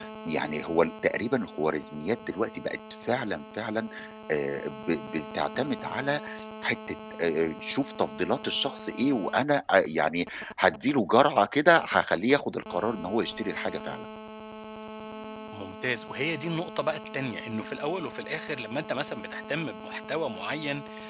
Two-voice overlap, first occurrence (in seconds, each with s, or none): none